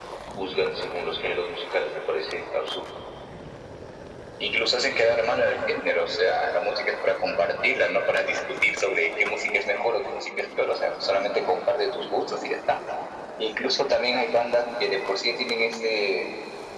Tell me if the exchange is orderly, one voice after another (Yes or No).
Yes